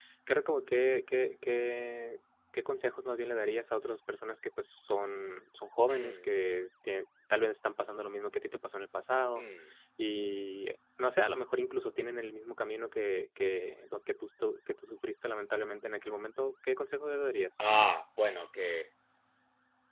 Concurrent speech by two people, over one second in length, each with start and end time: none

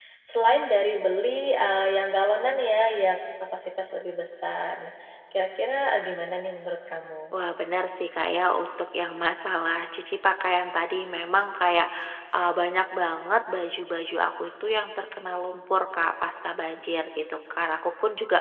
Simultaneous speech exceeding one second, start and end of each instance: none

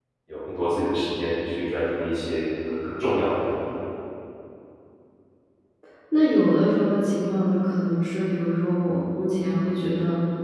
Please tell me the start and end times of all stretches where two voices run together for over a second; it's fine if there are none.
none

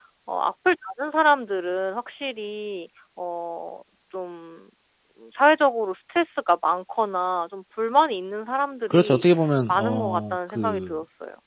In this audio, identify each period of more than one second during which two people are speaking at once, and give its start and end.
9.7-11.0

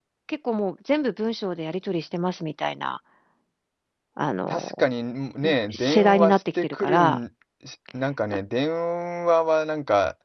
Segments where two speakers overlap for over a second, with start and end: 5.7-7.2

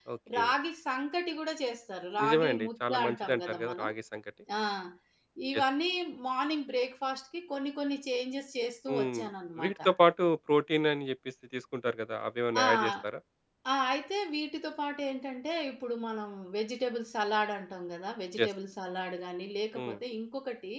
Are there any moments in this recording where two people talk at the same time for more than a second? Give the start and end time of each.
2.2-3.9

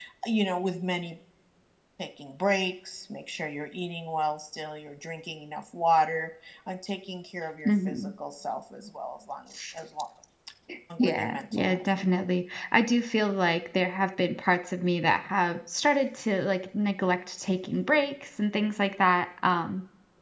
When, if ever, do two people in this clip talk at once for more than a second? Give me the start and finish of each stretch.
11.0-12.2

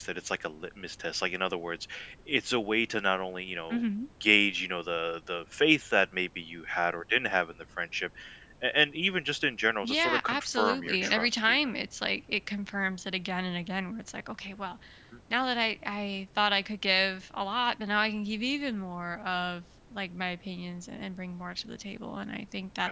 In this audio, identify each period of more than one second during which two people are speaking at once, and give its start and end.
9.8-11.6

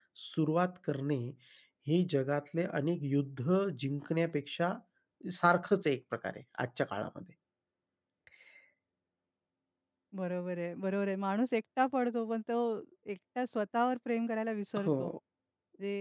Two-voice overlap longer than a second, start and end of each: none

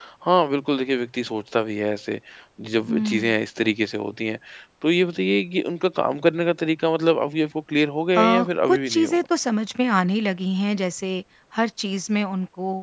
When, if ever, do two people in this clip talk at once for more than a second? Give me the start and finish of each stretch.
none

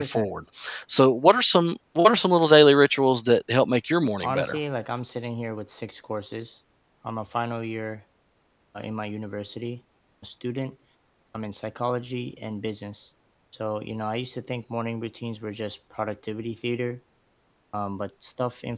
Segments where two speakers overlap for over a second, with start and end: none

